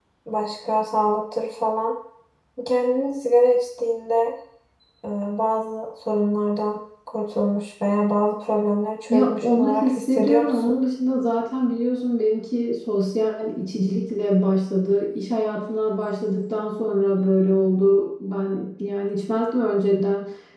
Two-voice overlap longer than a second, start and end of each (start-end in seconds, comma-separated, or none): 9.1-10.8